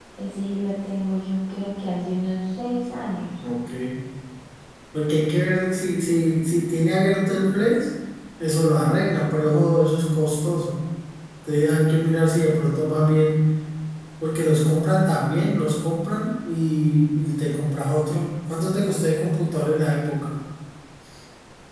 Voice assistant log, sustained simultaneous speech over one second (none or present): none